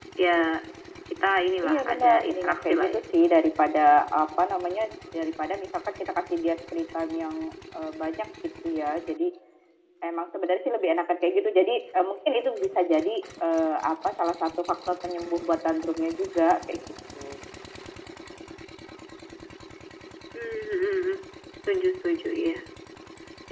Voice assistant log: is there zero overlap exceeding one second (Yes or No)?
No